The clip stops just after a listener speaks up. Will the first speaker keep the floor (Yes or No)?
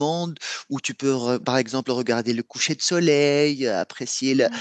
Yes